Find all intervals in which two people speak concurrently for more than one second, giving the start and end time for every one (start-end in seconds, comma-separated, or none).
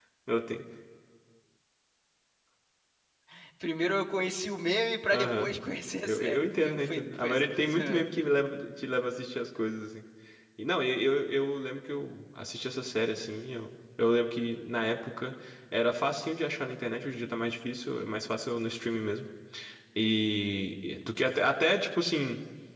6.0-8.0